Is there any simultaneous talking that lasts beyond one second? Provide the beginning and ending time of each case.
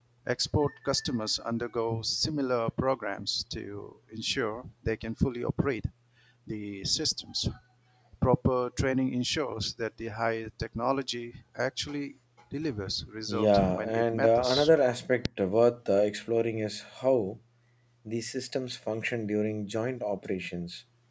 13.3-14.7

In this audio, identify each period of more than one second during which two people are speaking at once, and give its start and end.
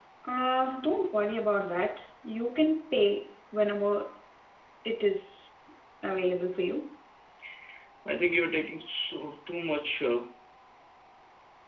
none

